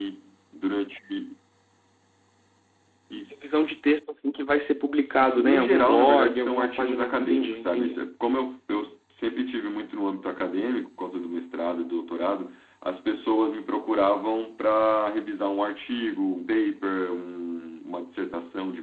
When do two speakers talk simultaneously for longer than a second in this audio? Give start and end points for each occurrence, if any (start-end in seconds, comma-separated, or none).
5.2-8.0